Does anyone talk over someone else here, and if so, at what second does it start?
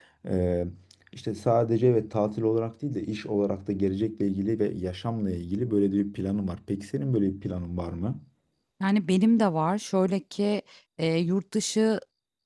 none

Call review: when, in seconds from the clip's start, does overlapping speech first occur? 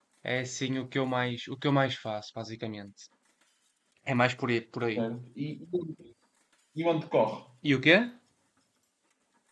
none

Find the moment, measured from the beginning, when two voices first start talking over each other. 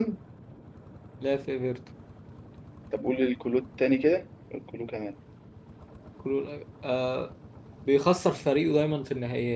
none

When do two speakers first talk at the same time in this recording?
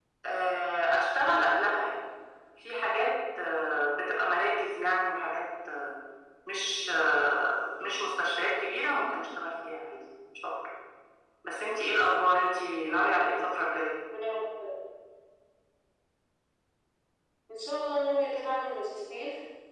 none

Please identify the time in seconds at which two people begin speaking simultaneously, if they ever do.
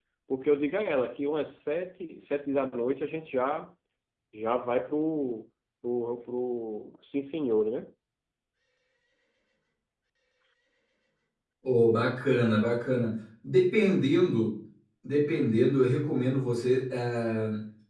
none

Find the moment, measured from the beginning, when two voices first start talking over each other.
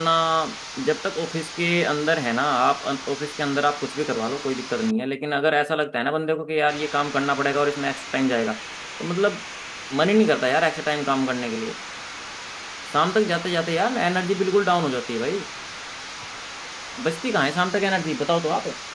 none

